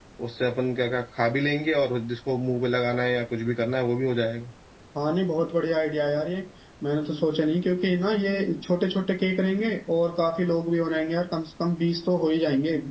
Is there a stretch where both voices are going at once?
No

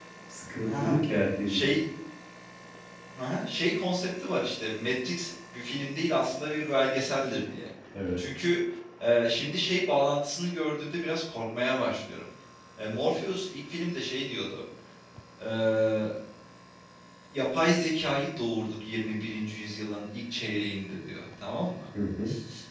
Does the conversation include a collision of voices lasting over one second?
No

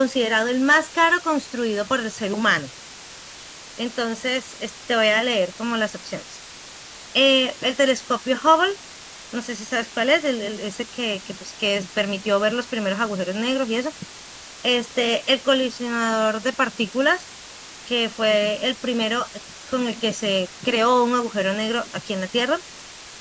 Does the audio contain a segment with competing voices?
No

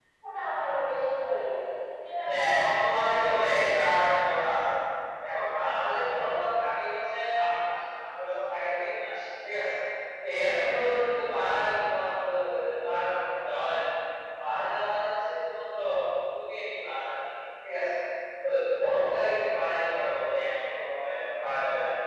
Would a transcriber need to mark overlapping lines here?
Yes, from 2.2 s

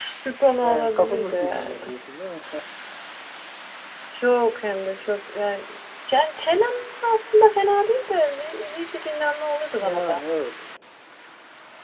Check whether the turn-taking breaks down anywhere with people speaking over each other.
Yes, from 0.6 s

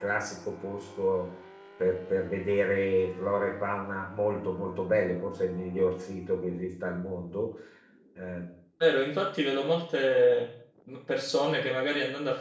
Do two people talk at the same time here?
No

